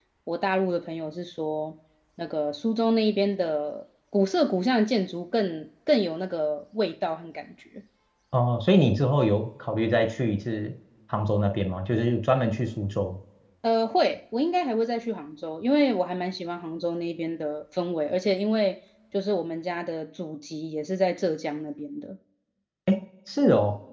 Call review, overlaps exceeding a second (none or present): none